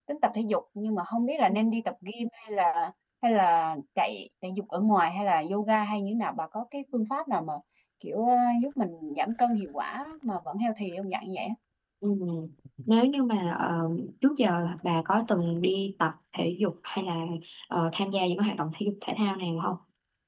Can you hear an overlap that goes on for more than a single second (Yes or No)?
No